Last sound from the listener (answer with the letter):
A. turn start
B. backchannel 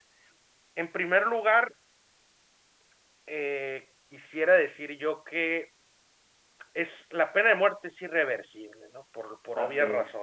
B